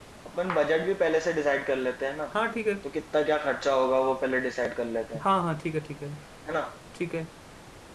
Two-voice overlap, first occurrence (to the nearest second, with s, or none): none